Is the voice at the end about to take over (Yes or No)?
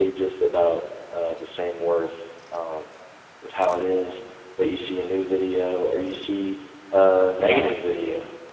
No